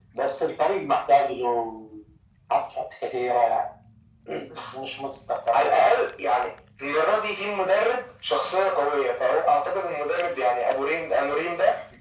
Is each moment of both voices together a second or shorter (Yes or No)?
Yes